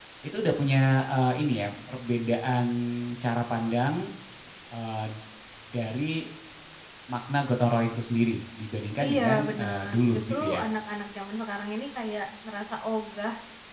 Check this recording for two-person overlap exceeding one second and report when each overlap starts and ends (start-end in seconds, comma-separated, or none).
9.0-10.6